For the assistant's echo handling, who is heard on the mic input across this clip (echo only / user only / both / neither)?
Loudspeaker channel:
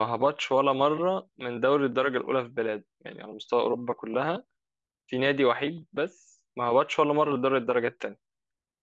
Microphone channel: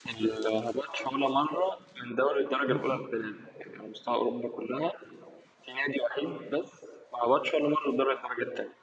both